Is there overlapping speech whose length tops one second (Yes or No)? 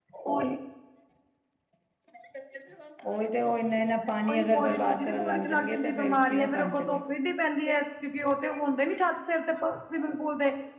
Yes